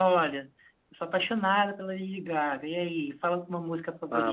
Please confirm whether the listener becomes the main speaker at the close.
Yes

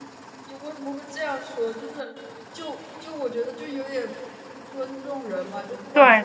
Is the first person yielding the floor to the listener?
No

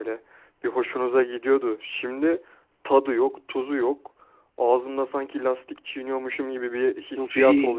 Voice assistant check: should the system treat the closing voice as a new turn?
Yes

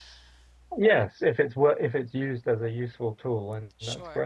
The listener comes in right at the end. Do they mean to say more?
Yes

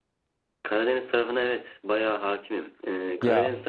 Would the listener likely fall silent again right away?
Yes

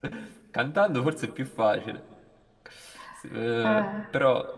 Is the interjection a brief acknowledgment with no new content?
Yes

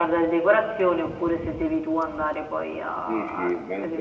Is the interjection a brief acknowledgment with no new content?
No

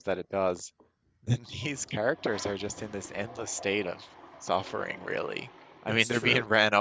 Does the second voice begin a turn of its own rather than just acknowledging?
No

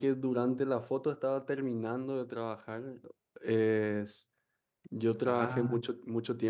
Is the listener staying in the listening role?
Yes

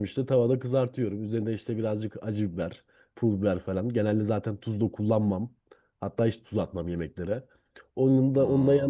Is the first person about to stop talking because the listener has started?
No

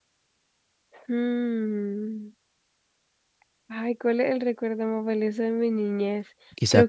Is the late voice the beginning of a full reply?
Yes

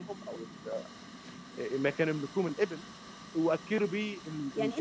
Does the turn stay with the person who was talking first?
No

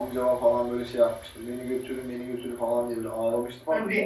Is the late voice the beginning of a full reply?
Yes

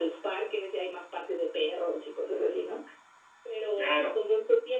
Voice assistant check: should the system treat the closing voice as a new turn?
No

